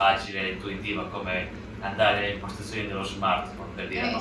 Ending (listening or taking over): listening